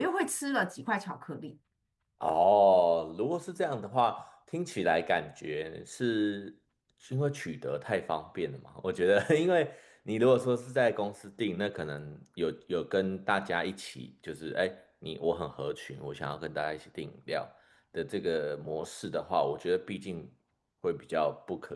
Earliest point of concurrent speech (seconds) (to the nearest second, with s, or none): none